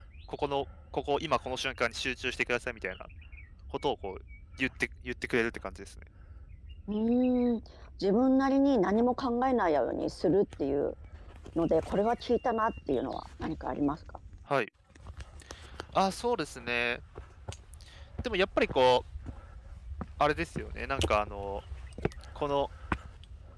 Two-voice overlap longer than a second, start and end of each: none

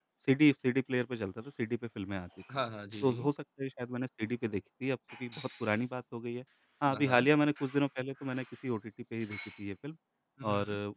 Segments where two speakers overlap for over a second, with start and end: none

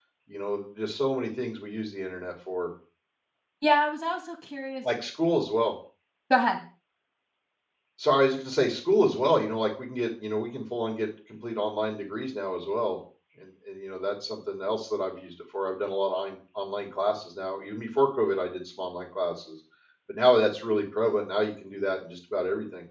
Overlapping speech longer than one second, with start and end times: none

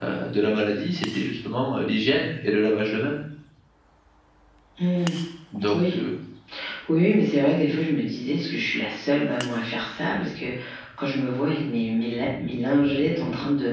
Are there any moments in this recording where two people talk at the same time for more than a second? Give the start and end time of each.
none

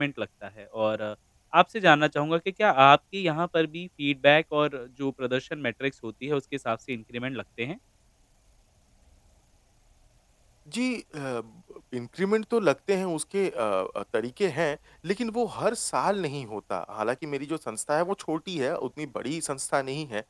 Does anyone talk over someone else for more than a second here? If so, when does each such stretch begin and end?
none

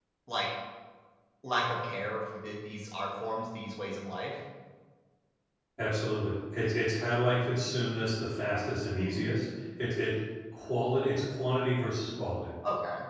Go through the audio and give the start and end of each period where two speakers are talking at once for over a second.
none

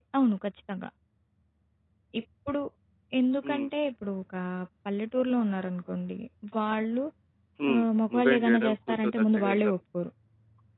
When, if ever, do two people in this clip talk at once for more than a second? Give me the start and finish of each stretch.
7.7-9.8

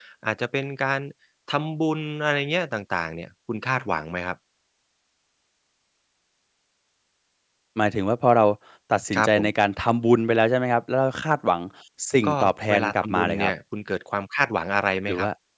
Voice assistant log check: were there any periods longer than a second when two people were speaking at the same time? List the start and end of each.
12.3-13.5

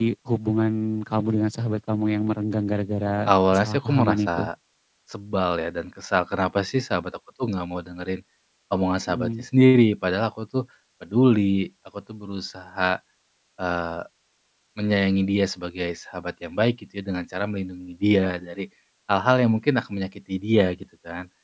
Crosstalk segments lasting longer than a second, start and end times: 3.3-4.5

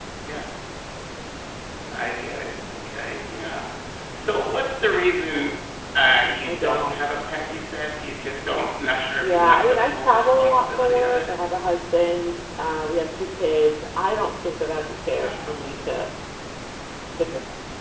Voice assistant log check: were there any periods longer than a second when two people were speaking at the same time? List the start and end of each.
9.2-11.3

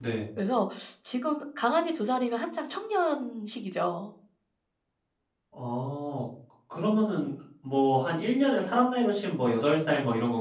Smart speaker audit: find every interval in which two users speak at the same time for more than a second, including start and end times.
none

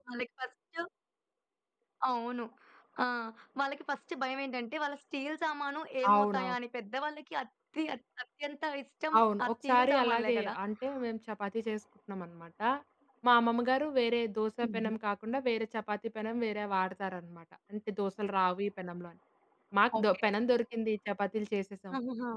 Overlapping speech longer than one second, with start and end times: 9.2-10.5

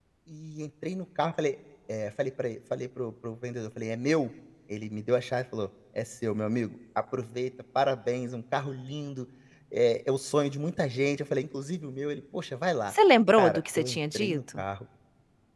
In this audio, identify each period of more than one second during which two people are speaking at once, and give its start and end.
13.4-14.6

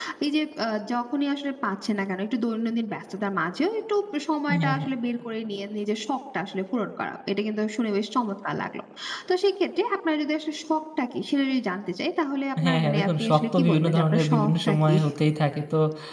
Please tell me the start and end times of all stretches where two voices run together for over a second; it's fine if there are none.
12.6-15.0

